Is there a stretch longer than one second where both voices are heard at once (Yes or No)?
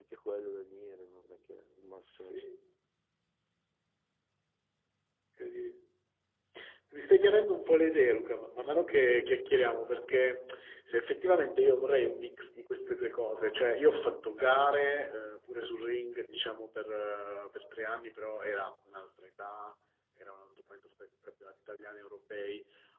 No